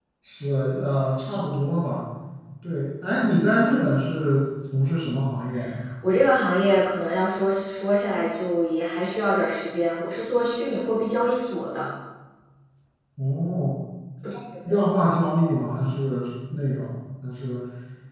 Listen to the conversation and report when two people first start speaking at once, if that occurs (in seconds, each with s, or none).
none